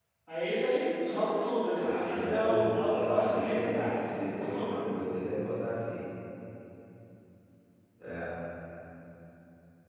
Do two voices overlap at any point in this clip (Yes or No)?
Yes